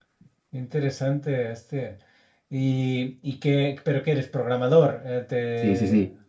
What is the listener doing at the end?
taking over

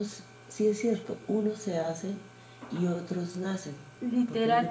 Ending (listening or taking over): taking over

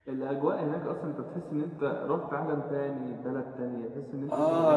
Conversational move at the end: taking over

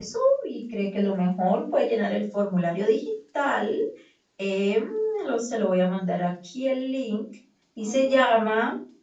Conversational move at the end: listening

